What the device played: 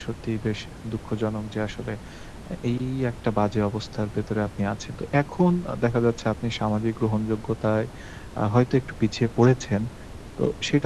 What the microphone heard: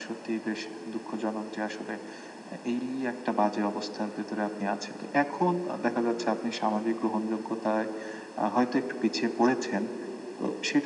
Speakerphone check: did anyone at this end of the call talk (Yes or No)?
No